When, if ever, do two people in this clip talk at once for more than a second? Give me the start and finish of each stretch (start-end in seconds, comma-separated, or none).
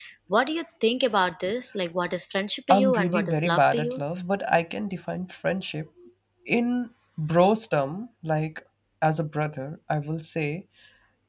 2.7-4.0